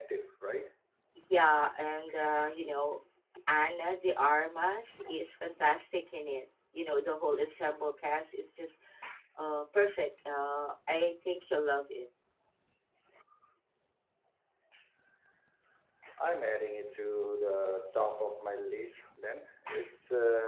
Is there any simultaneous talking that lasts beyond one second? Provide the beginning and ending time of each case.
none

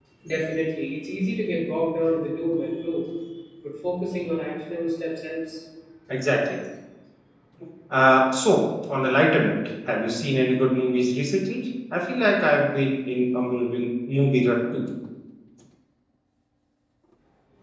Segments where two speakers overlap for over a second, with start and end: none

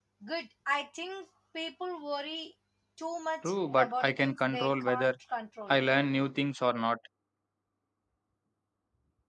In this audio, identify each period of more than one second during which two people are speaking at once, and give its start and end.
3.4-5.1

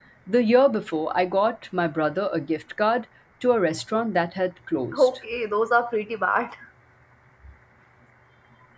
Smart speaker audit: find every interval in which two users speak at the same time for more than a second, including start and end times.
none

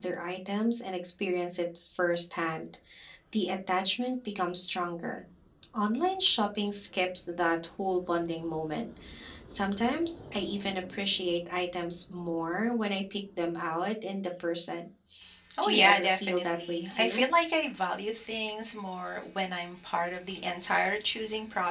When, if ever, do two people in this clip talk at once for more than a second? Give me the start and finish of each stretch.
15.6-17.2

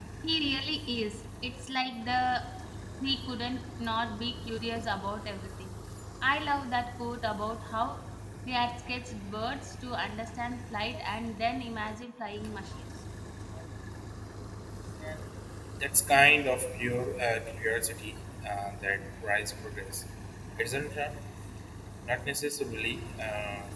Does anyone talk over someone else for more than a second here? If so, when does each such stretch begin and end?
none

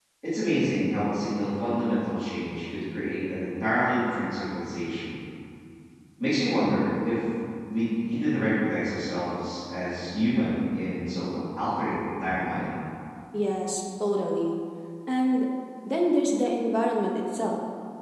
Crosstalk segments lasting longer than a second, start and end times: none

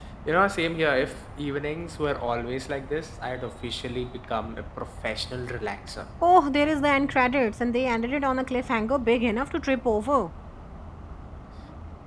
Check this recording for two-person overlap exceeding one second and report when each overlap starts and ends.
none

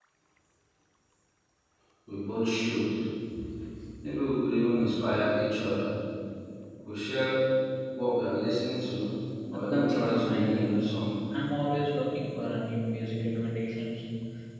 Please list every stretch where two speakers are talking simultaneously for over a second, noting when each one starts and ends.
9.5-10.7

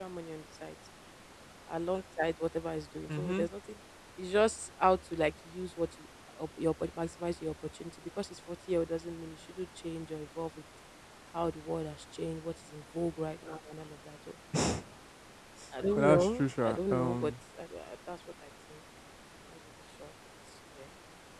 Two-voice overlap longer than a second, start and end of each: 16.0-17.3

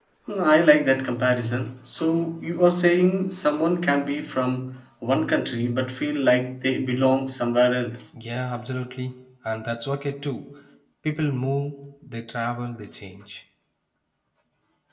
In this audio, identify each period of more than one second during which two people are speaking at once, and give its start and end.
none

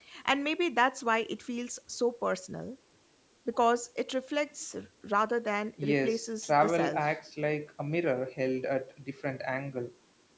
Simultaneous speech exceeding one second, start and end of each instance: 5.8-7.0

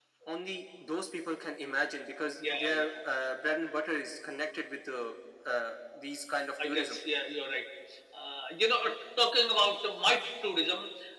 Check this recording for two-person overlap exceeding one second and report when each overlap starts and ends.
none

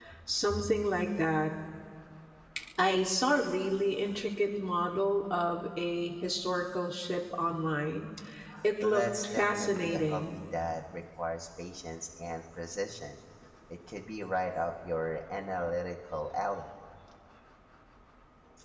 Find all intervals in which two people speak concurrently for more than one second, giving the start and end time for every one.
8.8-10.3

